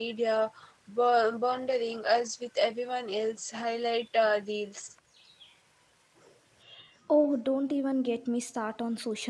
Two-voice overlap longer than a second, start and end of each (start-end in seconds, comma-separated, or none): none